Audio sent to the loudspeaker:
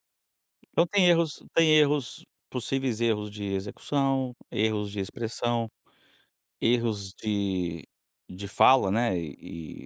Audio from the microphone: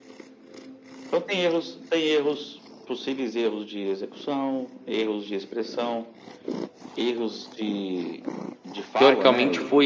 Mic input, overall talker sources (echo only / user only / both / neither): both